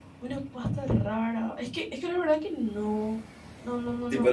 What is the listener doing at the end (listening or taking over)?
taking over